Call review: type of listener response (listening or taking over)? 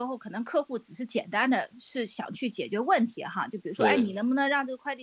listening